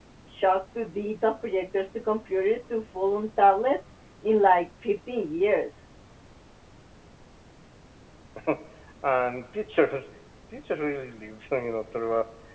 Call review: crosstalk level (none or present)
none